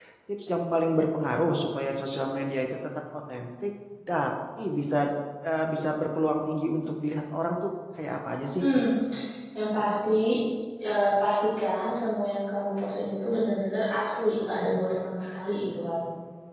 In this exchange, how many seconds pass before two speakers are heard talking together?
none

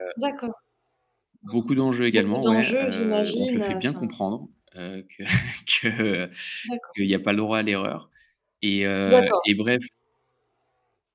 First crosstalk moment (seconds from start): 2.1 s

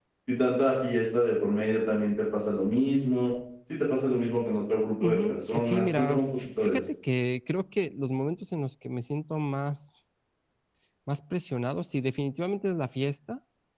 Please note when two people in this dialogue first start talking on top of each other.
4.9 s

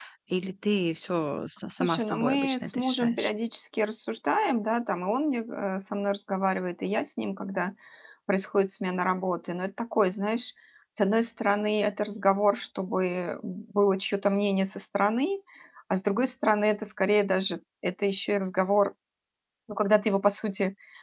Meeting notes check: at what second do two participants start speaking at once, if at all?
1.7 s

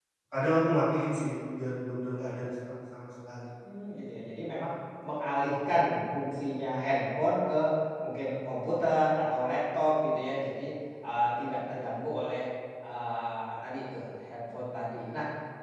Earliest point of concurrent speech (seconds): none

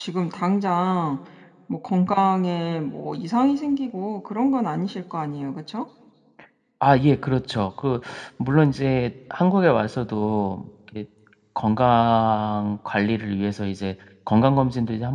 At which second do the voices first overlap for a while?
none

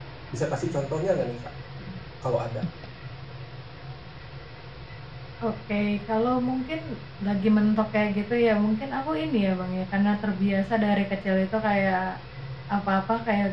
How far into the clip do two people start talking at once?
none

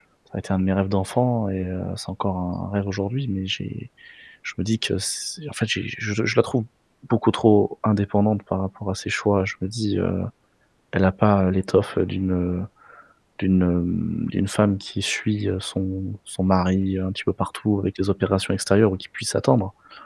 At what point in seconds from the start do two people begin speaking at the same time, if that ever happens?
none

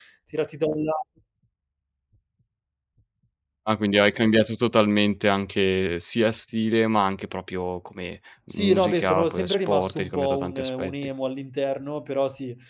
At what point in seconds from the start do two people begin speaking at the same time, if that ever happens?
8.5 s

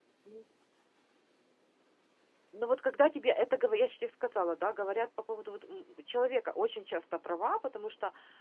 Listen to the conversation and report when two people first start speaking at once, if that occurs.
none

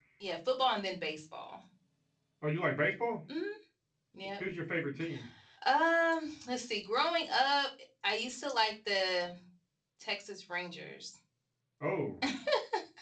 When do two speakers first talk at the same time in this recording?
none

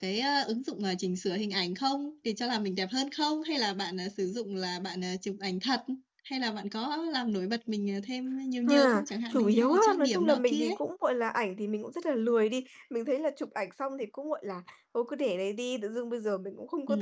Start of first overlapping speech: 8.7 s

